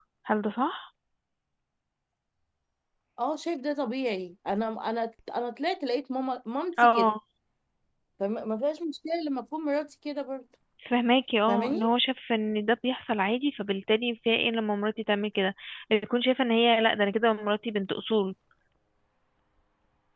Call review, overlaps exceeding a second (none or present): none